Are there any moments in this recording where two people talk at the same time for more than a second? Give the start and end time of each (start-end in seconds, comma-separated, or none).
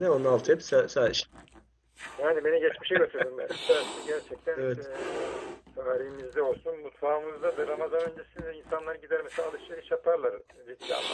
none